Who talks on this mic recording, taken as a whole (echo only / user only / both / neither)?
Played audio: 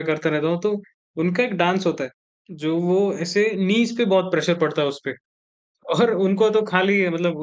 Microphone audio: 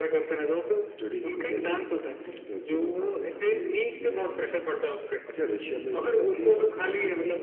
both